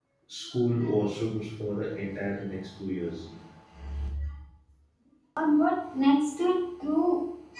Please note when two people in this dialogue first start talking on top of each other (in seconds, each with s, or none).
none